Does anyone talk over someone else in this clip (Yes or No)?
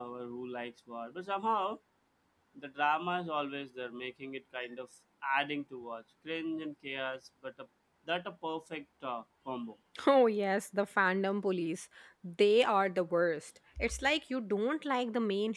No